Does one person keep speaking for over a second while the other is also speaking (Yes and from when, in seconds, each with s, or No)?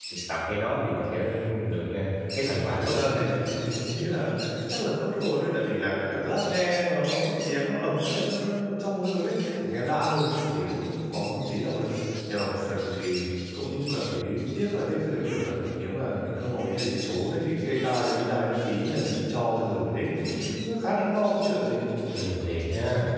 No